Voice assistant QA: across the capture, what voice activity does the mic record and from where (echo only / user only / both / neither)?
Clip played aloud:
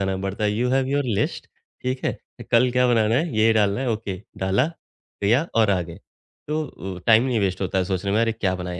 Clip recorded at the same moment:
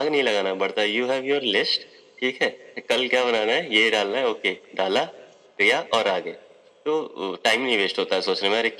echo only